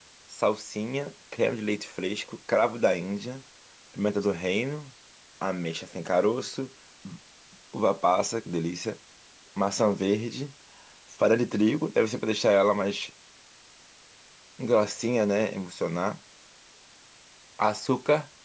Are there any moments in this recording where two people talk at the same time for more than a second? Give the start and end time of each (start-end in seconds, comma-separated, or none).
none